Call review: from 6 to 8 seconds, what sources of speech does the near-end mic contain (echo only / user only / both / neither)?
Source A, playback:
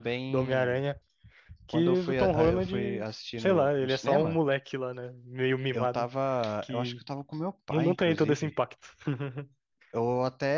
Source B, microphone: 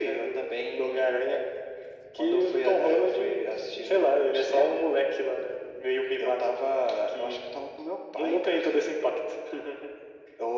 echo only